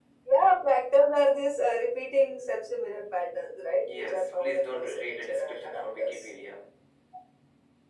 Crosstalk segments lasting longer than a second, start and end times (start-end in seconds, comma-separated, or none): 3.8-6.4